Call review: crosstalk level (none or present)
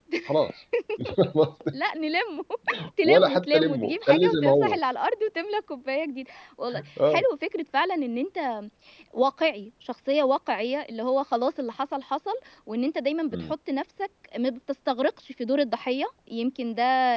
present